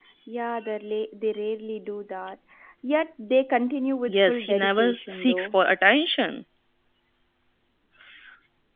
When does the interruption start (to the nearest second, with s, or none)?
4 s